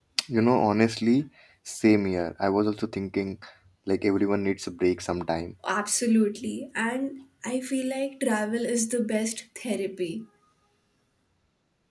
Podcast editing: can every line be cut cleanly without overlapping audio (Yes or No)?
Yes